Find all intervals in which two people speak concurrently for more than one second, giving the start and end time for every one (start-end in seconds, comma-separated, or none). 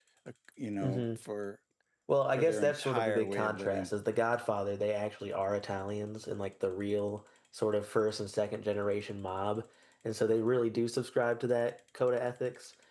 2.3-3.9